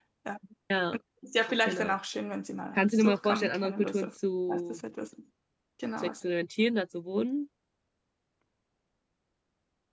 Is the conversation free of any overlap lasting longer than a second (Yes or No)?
No